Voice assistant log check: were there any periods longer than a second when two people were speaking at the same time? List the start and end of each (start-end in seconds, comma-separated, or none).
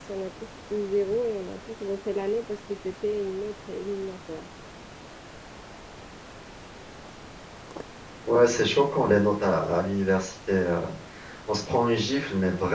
none